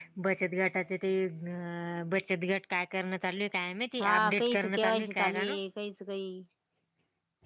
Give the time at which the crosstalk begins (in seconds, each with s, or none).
4.0 s